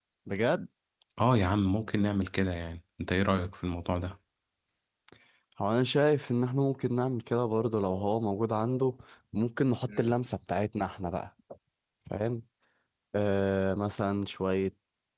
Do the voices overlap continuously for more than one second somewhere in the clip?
No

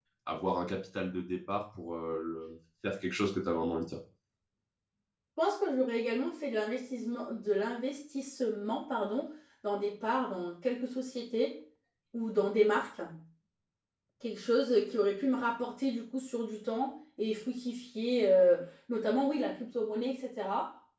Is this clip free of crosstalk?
Yes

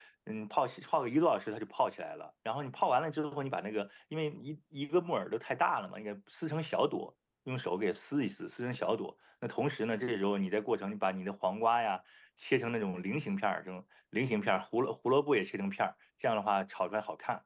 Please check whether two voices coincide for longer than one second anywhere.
No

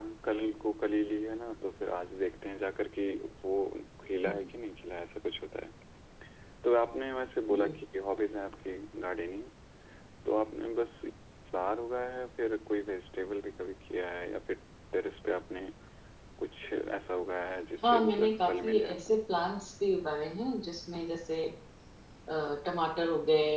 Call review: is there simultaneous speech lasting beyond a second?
Yes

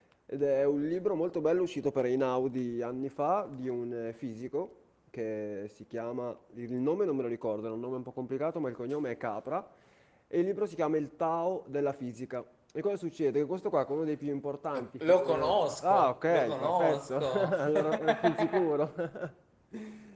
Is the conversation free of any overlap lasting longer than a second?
No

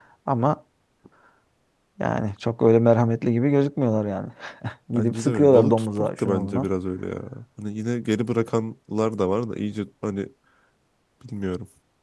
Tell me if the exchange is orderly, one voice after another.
No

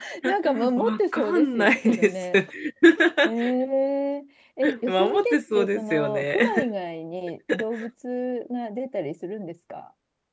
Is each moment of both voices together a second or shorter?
No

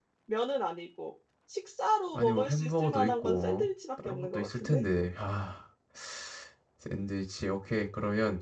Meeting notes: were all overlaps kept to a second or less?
No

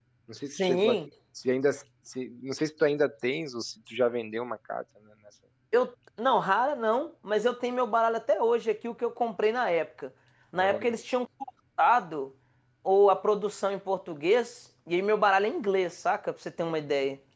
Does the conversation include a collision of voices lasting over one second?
No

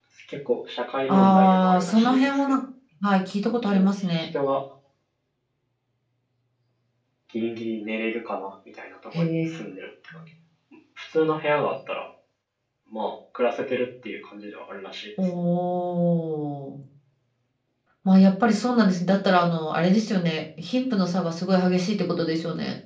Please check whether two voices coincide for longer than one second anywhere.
Yes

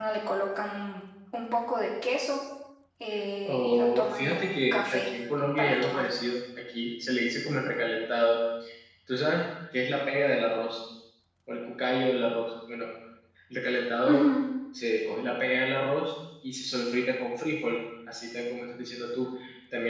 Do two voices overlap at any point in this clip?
Yes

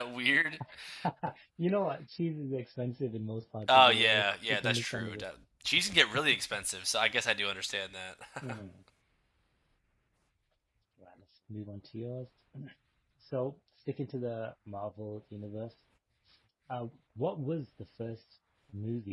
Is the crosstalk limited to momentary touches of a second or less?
No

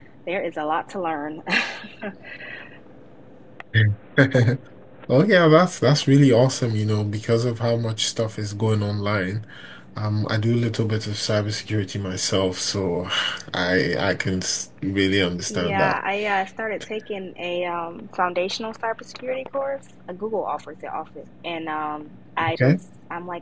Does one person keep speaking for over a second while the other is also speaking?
No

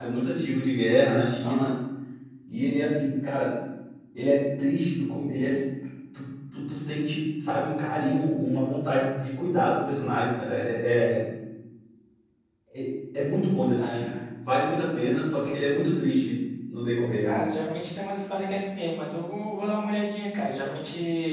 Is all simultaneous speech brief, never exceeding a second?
Yes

